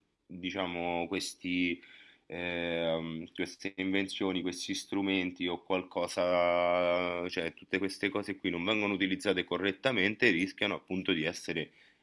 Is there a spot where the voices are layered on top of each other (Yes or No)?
No